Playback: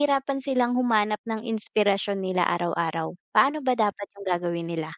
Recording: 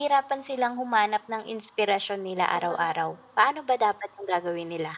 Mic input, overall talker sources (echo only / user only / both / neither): both